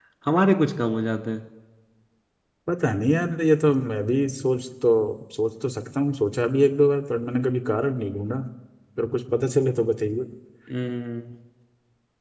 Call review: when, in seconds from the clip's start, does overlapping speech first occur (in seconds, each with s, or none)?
none